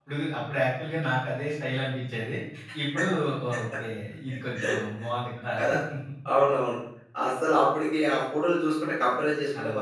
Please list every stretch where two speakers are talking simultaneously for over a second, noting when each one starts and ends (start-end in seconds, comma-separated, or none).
none